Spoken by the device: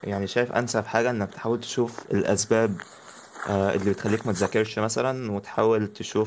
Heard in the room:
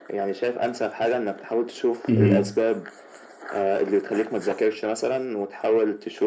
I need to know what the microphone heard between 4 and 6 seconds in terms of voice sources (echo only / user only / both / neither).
echo only